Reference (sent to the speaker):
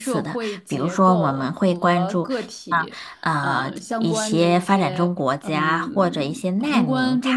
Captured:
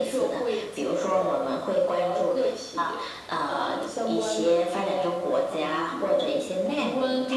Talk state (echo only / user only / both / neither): echo only